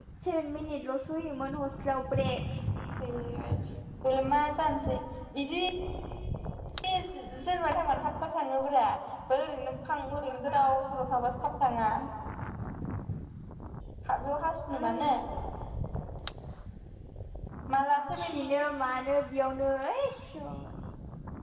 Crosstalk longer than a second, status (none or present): none